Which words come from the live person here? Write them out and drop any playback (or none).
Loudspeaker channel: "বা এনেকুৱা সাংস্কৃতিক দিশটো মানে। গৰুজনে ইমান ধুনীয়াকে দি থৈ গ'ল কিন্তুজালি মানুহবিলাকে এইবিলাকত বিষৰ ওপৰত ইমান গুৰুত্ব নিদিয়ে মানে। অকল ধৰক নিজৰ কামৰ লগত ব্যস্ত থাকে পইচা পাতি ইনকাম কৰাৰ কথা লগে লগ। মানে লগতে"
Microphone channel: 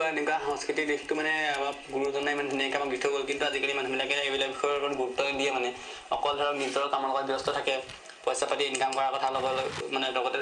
none